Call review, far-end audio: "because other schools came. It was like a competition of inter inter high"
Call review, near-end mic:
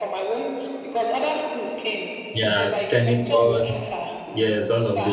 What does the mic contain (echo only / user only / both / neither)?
both